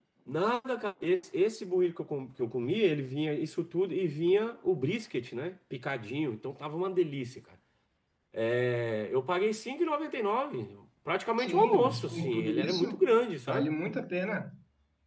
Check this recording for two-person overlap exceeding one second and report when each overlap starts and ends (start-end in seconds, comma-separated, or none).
11.4-12.9